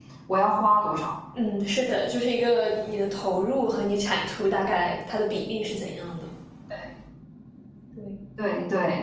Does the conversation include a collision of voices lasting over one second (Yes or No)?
No